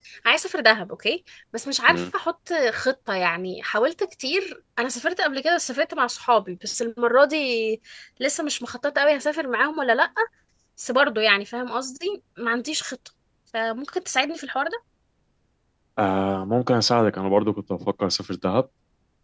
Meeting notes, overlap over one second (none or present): none